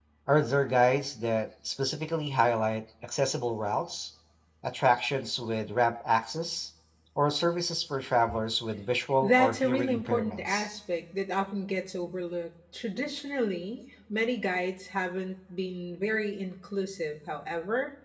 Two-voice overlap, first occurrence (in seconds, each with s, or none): 9.2 s